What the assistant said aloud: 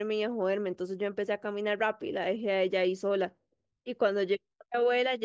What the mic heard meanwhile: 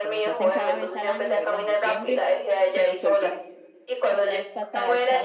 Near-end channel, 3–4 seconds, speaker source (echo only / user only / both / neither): both